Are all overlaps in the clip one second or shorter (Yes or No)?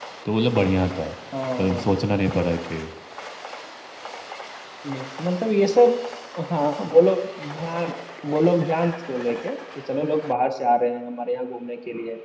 Yes